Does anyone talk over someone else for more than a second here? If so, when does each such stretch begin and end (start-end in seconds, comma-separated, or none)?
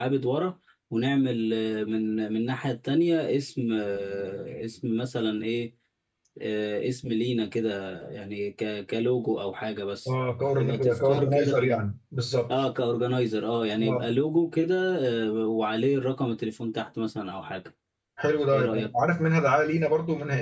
10.6-11.8